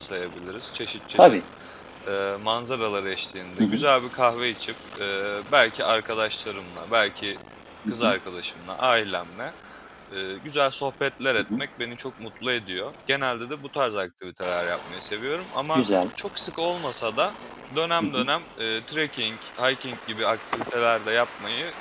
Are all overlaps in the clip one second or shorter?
Yes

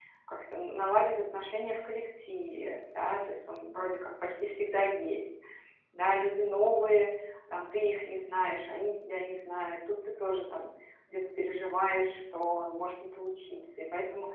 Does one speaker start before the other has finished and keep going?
No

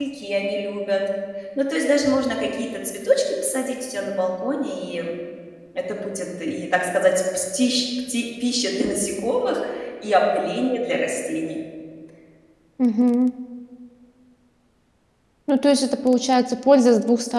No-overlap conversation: Yes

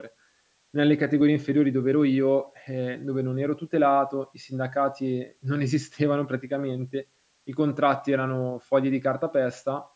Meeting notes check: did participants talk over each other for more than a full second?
No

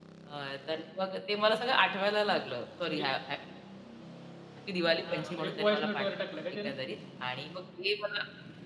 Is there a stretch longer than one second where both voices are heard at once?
Yes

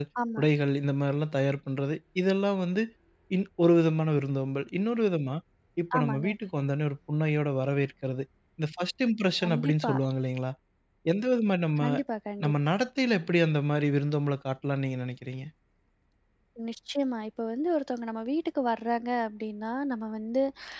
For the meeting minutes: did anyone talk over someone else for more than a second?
No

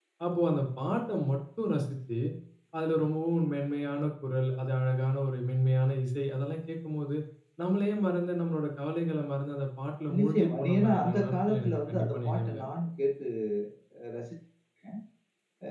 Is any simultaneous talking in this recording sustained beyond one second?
Yes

